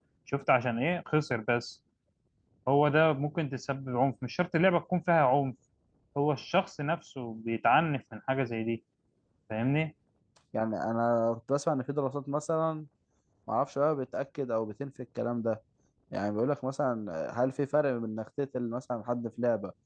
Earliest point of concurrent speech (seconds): none

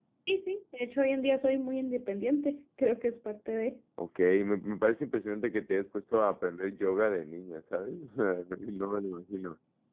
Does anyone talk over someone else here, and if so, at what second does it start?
none

